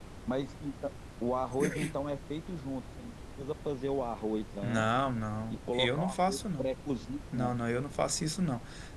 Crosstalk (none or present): present